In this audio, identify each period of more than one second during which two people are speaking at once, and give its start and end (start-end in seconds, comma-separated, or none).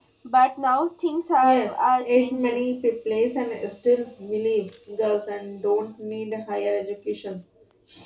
1.4-2.7